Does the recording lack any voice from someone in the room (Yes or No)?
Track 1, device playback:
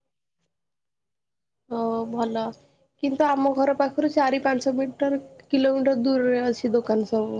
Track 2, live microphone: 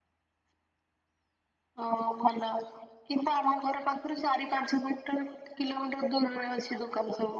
Yes